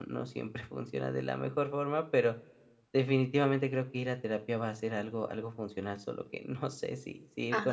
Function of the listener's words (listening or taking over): taking over